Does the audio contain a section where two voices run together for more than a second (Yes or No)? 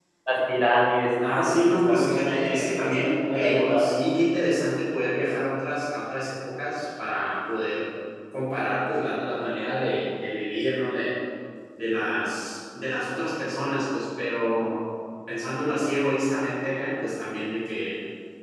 Yes